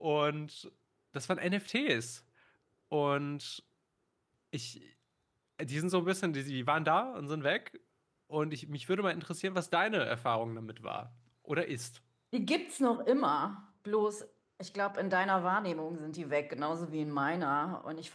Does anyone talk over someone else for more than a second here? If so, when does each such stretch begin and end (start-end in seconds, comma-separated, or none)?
none